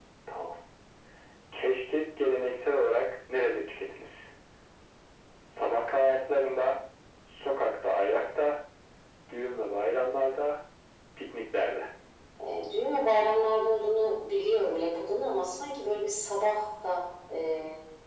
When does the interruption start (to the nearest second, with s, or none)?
none